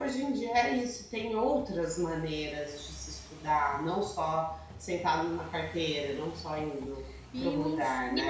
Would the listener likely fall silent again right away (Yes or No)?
No